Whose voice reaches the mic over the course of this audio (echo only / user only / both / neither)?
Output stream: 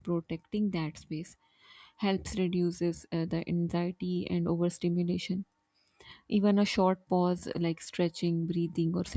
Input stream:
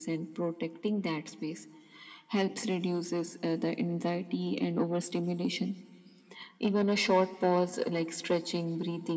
echo only